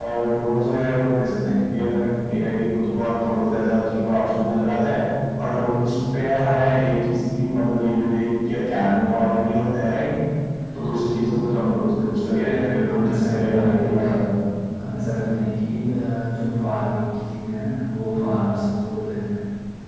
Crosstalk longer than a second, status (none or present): present